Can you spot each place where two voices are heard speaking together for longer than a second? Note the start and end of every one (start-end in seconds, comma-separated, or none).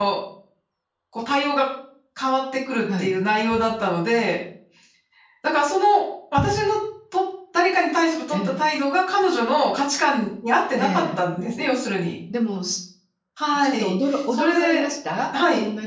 13.6-14.8